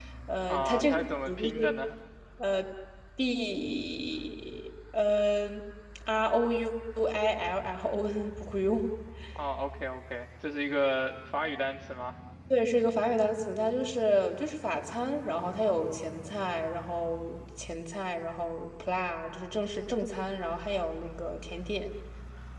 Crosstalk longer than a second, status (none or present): present